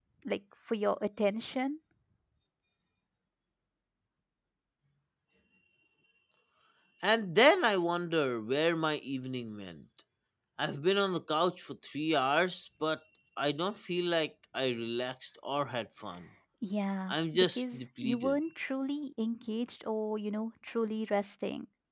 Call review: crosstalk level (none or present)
present